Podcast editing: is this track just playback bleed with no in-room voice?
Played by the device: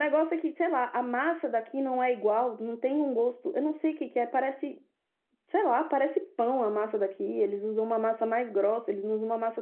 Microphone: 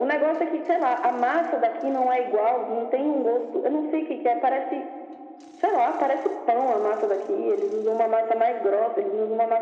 Yes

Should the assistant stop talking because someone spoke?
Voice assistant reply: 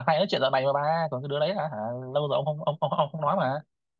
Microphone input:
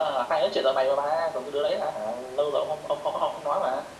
No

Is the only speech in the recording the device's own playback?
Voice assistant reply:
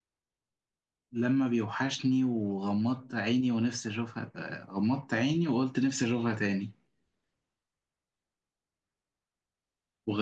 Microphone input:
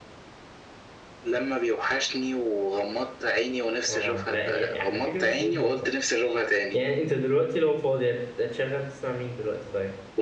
No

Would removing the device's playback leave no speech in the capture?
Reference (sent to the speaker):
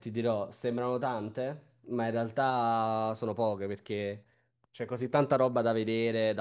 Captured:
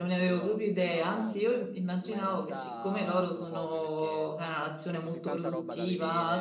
No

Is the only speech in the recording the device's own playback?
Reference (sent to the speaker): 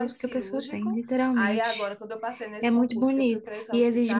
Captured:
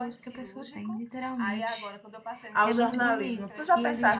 No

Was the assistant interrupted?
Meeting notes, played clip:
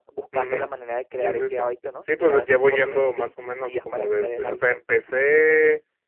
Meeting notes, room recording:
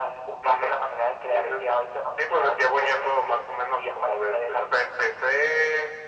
No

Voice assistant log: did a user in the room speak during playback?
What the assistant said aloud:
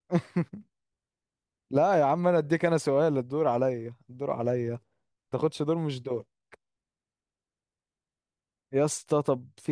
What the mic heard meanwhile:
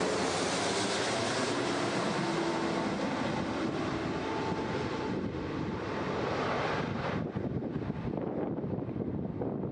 No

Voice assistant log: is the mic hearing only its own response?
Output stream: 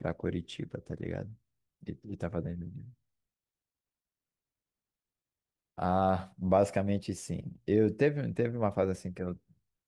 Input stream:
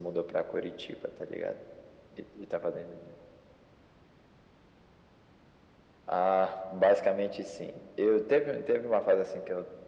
Yes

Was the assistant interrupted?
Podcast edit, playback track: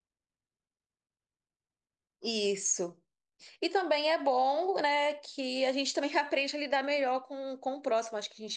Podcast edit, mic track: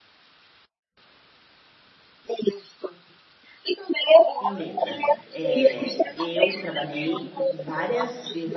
Yes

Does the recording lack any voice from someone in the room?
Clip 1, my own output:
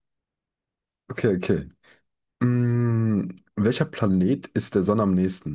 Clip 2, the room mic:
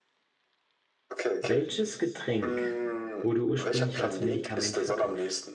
No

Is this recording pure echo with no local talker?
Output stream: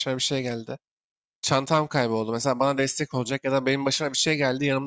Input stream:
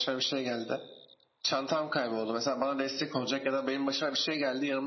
Yes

